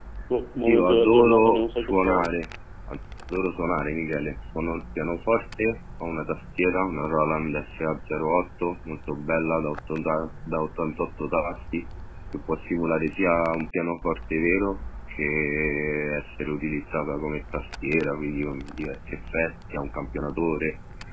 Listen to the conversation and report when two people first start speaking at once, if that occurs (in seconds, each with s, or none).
0.7 s